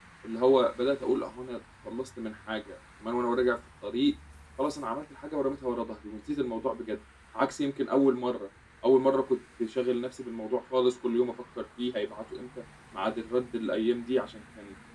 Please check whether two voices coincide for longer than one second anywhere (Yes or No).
No